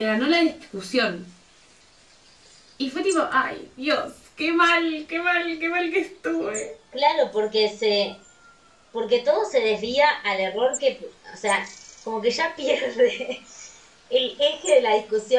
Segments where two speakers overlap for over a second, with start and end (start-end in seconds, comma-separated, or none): none